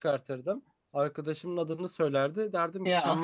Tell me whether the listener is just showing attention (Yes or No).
Yes